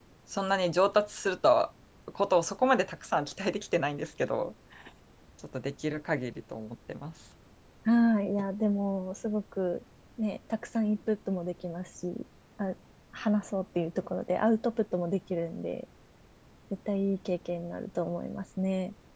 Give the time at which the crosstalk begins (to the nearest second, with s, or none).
none